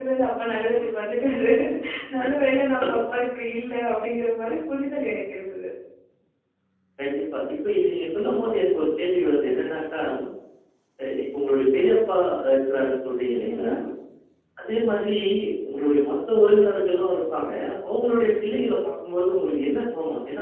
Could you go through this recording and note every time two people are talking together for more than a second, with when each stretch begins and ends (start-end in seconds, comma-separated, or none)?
none